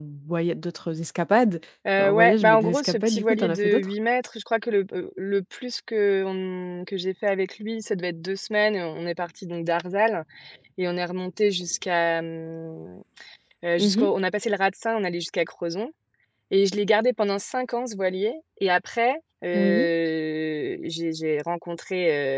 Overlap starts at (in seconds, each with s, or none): 2.0 s